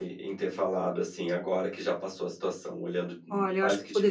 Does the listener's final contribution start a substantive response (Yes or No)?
Yes